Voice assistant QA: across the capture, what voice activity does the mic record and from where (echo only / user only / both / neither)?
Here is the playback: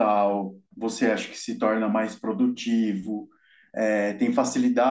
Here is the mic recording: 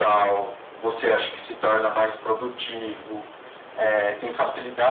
echo only